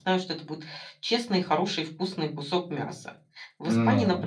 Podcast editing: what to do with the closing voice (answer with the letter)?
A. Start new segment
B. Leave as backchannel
B